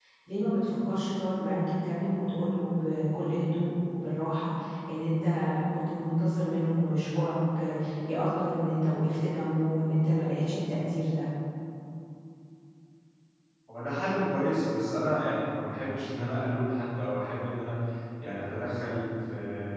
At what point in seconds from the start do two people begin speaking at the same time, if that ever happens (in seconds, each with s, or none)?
none